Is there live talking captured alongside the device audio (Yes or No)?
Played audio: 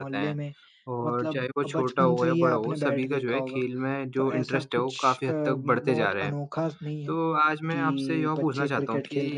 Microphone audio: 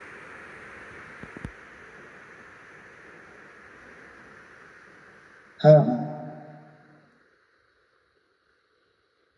Yes